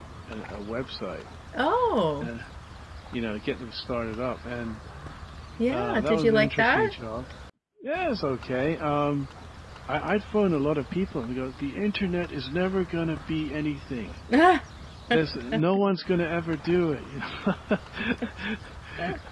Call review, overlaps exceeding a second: present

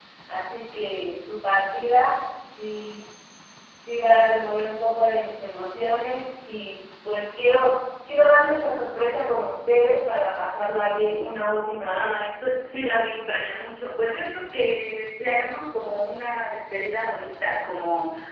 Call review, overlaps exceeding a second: none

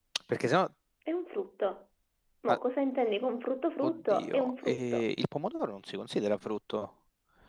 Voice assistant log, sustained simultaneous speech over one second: present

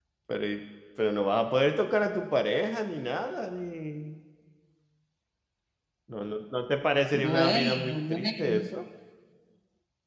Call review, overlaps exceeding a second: present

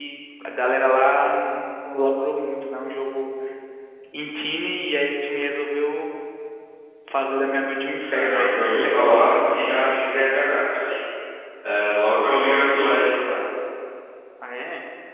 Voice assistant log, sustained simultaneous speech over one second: present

